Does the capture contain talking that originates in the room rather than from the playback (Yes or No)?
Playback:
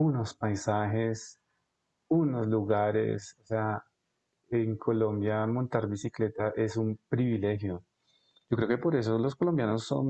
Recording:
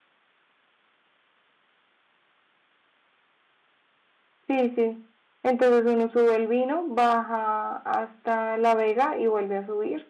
Yes